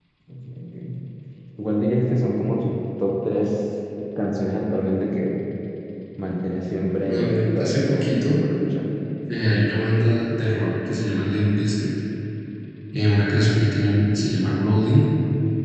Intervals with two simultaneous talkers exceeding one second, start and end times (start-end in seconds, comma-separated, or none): 7.0-8.4